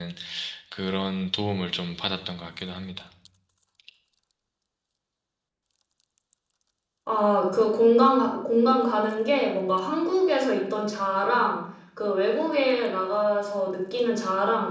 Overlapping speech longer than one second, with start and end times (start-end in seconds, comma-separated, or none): none